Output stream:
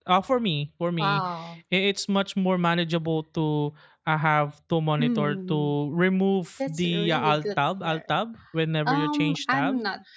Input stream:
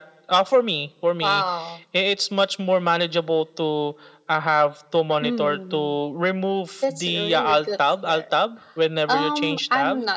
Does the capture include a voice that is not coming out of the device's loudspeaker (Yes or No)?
No